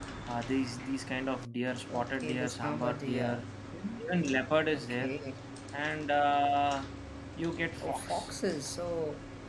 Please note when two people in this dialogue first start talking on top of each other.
2.0 s

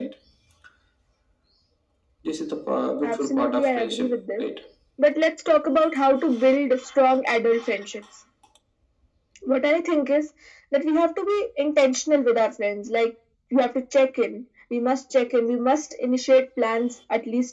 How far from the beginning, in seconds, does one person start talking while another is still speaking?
3.0 s

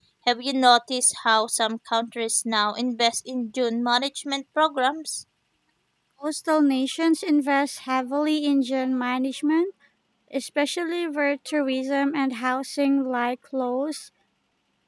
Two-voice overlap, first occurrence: none

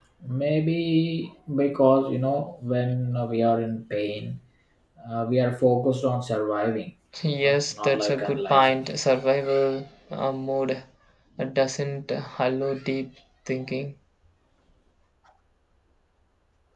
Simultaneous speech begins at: 7.4 s

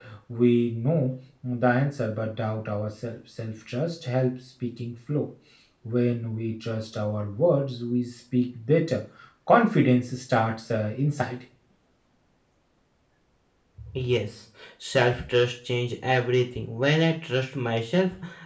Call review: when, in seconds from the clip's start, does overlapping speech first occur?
none

